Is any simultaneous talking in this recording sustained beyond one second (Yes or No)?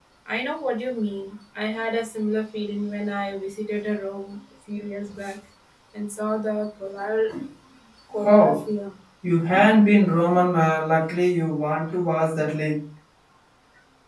No